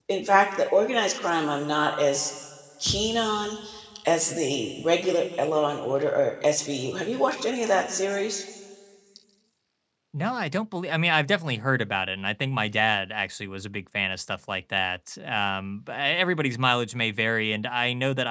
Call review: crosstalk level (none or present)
none